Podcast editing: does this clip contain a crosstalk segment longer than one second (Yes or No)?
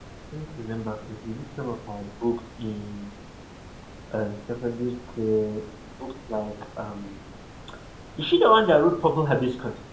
No